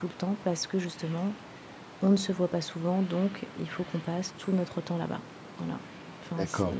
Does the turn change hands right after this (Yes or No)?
Yes